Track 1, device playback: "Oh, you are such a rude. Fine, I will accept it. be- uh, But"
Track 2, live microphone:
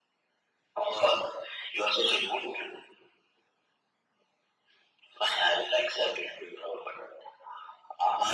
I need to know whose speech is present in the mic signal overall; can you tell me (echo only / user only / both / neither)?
echo only